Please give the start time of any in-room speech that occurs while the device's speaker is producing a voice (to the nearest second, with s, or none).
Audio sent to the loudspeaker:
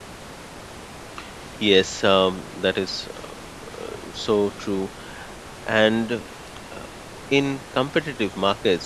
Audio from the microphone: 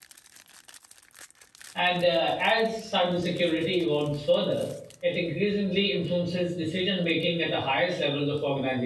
2 s